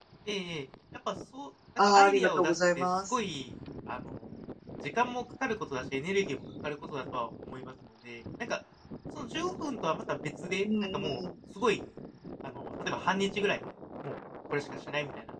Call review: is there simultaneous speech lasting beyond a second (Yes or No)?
Yes